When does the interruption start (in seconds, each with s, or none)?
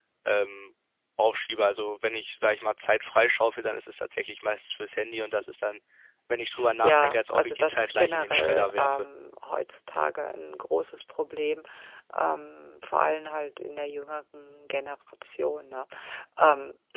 6.8 s